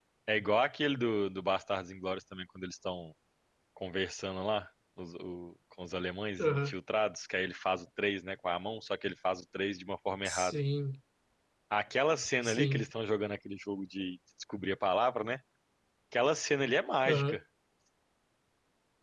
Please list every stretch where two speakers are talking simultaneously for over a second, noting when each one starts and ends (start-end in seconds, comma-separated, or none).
none